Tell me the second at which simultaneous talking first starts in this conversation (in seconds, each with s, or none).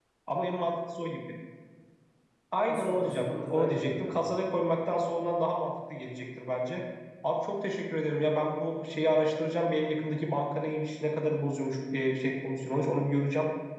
2.7 s